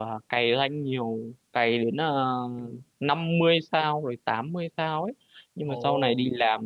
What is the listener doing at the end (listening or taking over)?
listening